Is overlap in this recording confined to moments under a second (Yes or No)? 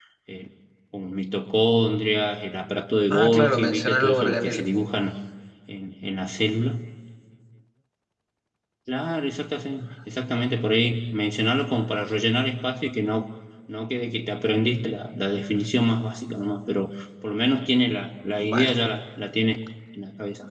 No